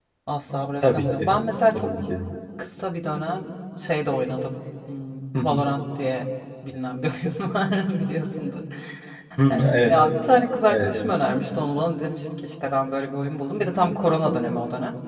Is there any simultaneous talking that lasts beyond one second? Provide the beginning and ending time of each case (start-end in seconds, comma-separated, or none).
none